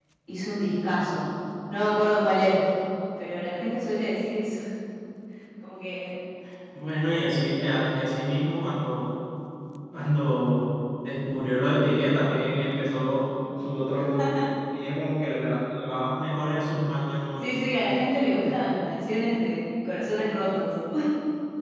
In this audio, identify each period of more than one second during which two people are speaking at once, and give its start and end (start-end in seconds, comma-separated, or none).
none